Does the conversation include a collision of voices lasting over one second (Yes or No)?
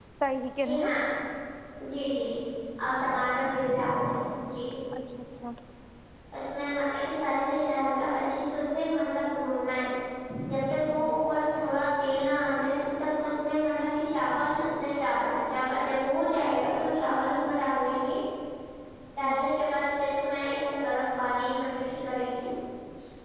No